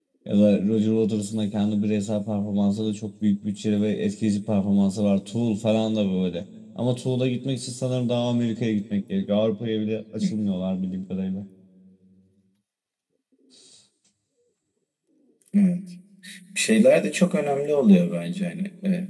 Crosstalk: none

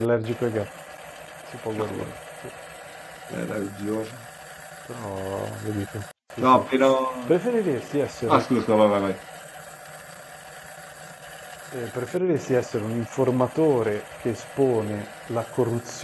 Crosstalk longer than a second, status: none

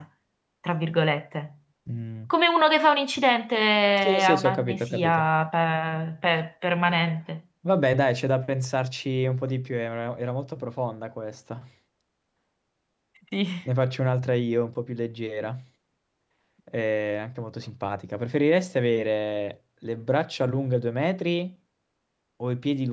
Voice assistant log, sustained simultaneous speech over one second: present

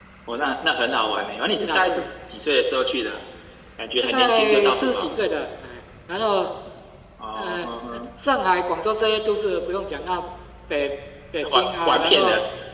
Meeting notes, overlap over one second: present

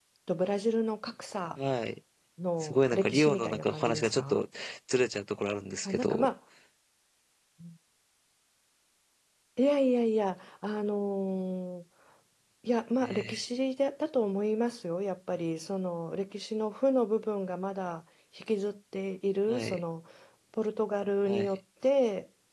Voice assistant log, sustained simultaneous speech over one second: present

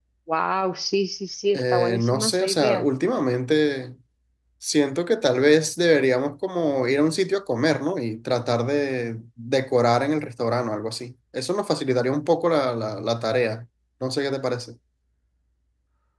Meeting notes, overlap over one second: present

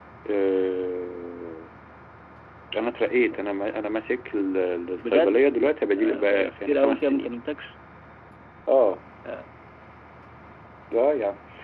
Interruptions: present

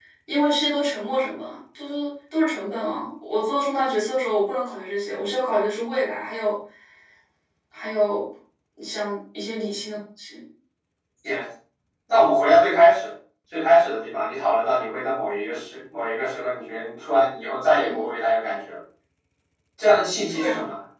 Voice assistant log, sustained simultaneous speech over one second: none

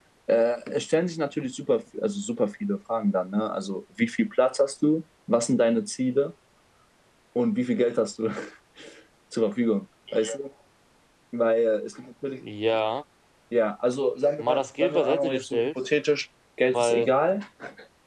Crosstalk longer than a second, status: present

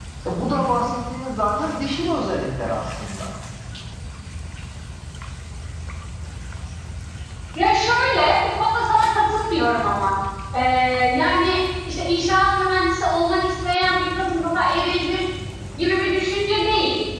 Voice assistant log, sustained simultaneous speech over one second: none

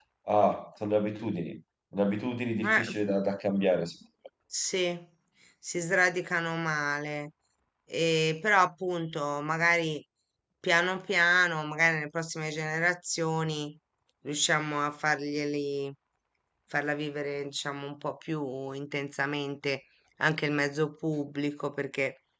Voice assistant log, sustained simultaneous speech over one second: none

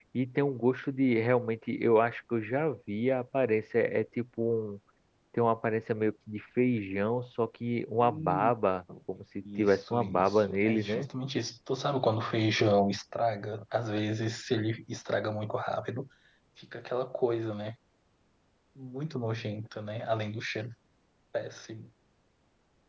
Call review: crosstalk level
present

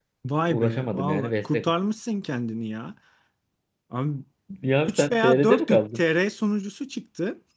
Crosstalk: present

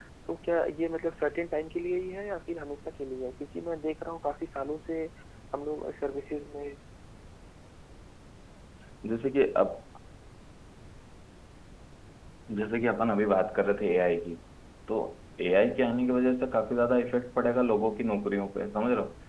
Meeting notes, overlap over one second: none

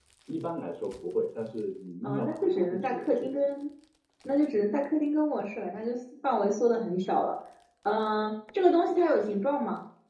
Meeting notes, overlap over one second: present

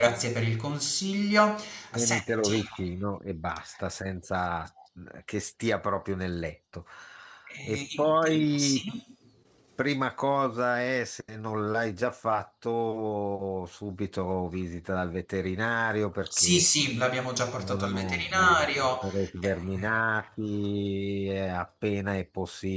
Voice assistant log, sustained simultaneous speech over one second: present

